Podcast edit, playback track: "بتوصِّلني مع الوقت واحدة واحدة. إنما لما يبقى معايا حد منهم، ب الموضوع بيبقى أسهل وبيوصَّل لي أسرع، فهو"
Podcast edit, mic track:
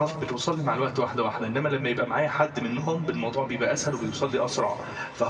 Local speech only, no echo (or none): none